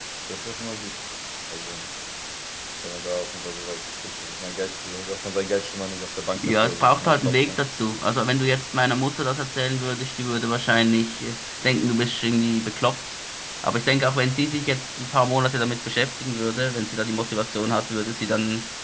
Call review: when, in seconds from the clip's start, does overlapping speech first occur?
6.4 s

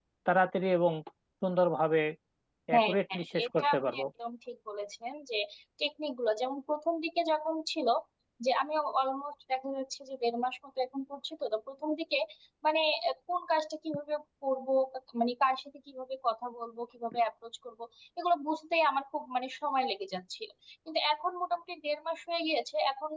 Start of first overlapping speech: 2.7 s

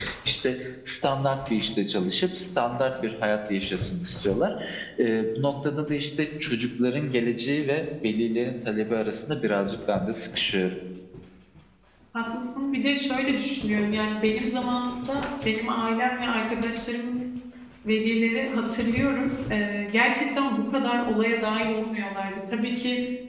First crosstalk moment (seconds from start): none

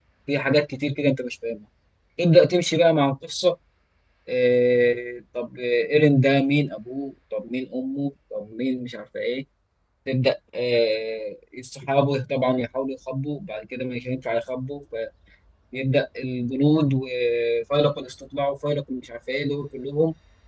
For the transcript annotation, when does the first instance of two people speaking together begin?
none

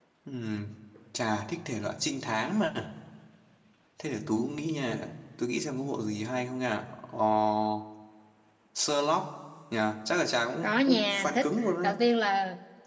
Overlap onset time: 10.6 s

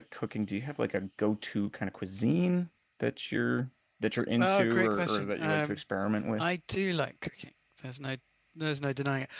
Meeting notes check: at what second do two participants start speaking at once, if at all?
4.4 s

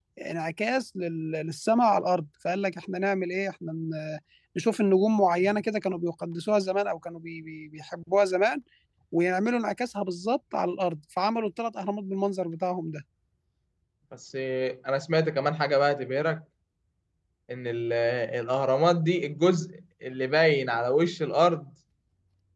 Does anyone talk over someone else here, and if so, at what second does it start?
none

